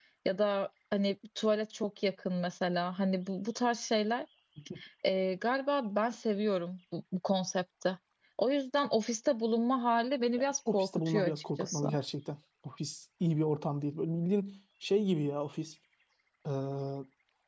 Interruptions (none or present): present